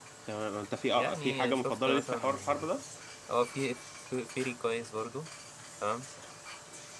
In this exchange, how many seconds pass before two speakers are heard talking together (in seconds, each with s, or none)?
0.9 s